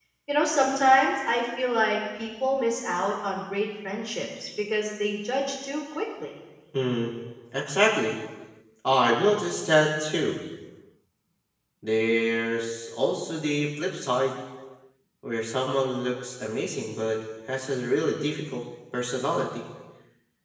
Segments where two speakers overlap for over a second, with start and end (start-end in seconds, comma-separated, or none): none